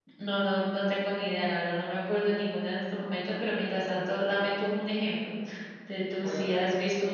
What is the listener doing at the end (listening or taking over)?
listening